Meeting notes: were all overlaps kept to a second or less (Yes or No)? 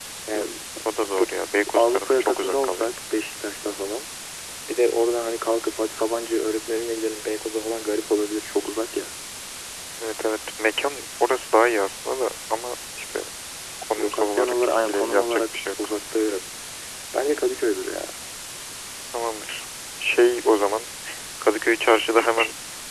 No